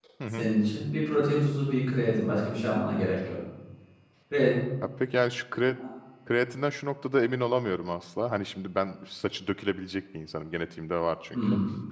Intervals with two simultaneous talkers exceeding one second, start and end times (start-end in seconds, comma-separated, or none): none